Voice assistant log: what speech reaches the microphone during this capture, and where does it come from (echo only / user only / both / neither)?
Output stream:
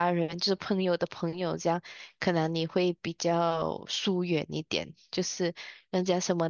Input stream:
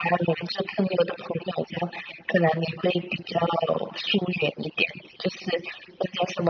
echo only